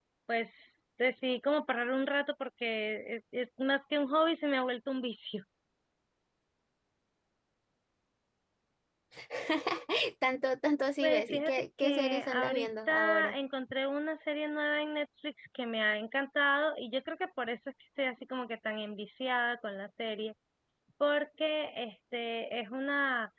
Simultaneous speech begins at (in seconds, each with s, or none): 11.0 s